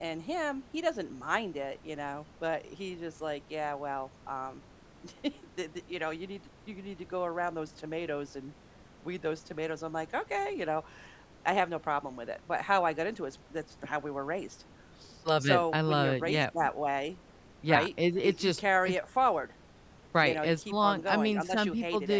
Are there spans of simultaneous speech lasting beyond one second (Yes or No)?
Yes